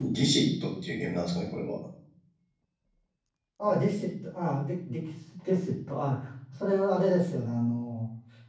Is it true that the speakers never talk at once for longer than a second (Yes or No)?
Yes